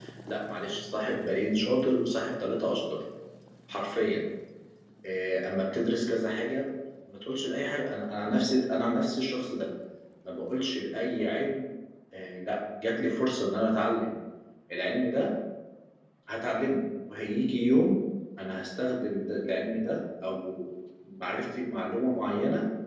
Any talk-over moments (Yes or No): No